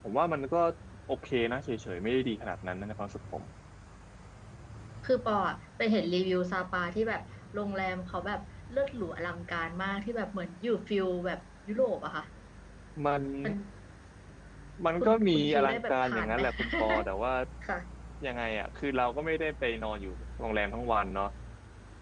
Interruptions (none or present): present